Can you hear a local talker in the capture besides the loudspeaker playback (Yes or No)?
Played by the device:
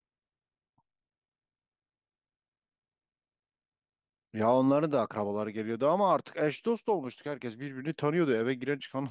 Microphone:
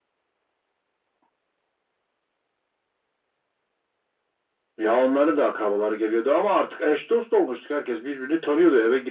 No